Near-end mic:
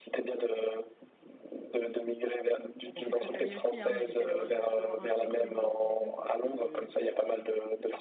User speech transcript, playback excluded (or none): Bon, je suis très famille aussi, hein, mais j'essaie d'avoir d'avoir un juste équilibre entre les deux parce que...